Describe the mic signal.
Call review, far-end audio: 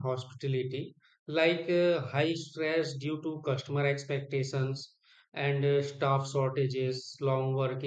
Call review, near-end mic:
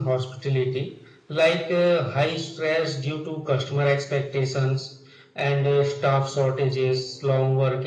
echo only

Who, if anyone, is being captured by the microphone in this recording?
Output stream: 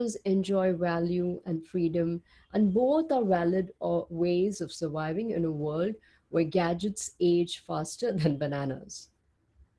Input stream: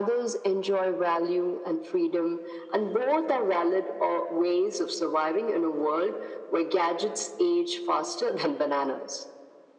echo only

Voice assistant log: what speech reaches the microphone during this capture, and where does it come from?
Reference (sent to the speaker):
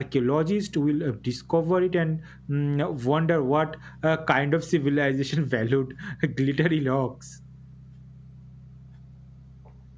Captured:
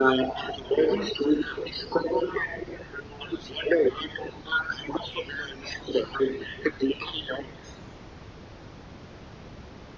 echo only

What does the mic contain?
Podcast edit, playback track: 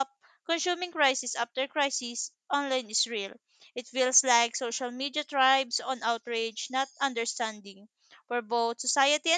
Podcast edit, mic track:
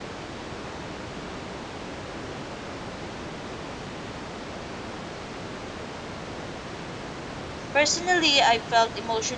user only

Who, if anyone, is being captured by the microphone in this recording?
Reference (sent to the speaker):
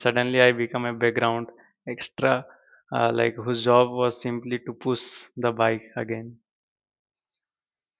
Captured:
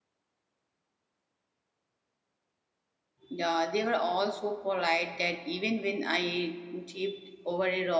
user only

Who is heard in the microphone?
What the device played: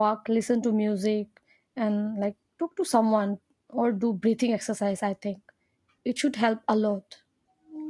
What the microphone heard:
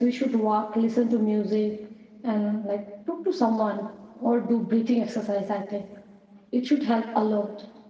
echo only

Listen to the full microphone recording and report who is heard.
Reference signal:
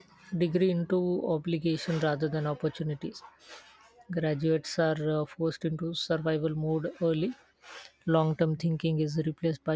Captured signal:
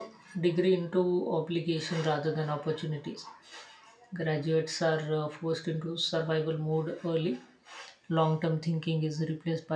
echo only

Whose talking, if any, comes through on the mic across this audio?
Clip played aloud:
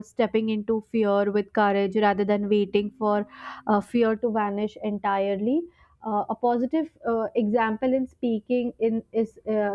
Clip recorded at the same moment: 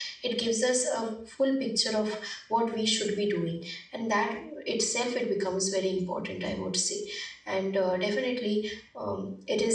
user only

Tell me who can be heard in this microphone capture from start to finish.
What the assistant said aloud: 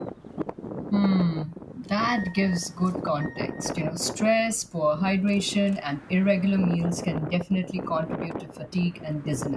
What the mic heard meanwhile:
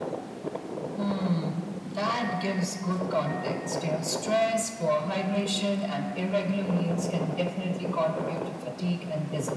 echo only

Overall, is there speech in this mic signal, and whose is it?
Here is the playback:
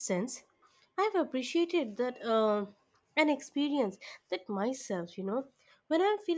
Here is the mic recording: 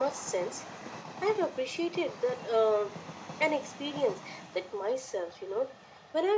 echo only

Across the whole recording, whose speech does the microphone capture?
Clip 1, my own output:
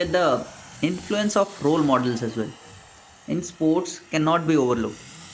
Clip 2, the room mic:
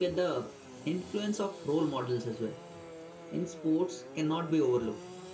echo only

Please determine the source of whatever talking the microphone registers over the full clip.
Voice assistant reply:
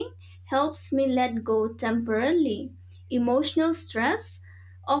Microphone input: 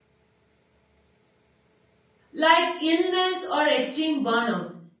user only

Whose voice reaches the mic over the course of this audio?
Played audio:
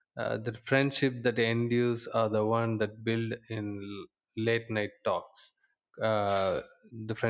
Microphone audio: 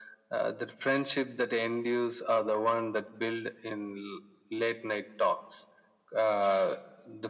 echo only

